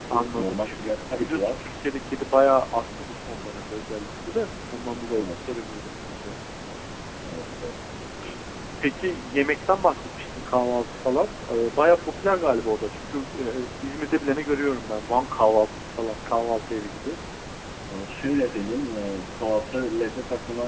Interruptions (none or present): present